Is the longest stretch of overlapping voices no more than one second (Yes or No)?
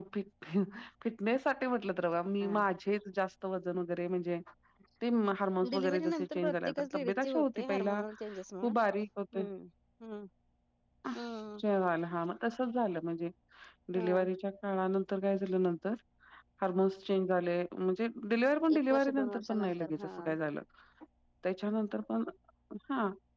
No